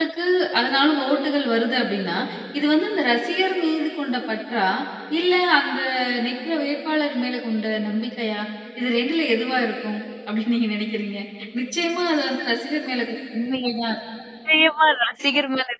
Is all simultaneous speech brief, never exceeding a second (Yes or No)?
Yes